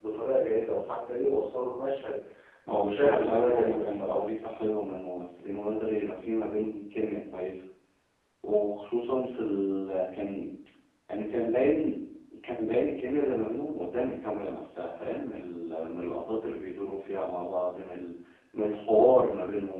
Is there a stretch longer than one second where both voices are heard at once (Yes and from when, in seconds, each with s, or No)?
Yes, from 2.7 s